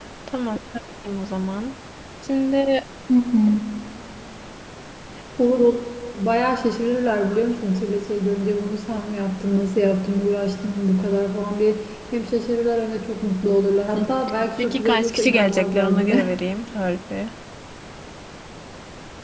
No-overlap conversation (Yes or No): No